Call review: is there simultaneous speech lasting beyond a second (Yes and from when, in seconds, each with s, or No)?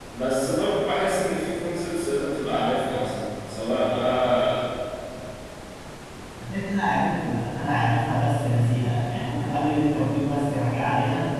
No